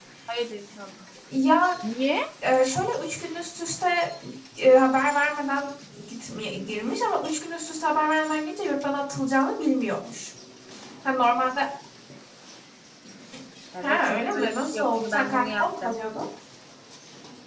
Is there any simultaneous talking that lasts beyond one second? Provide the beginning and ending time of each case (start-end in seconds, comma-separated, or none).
13.8-16.0